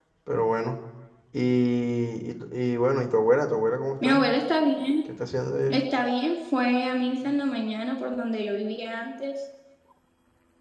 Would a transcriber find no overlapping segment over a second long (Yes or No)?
Yes